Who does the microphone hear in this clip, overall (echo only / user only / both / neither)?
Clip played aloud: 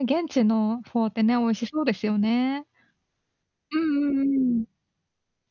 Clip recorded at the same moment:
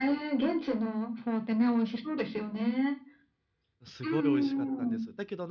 both